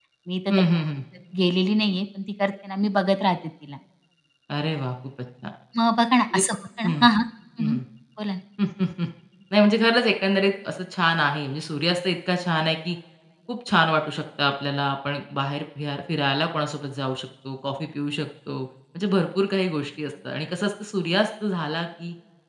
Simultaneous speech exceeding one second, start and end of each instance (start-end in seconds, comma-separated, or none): none